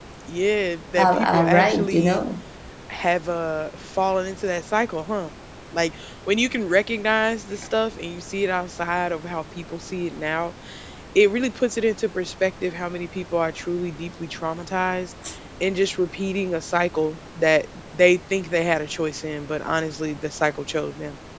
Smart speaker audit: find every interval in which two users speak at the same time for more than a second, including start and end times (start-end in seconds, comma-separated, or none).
1.0-2.2